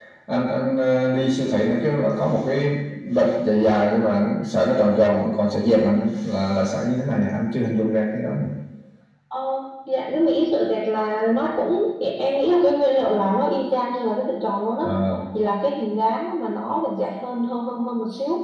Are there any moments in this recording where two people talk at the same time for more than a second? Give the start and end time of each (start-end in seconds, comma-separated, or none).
none